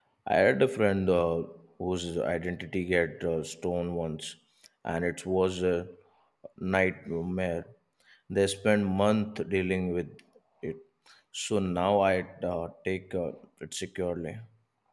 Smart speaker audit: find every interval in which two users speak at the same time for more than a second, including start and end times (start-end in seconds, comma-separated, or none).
none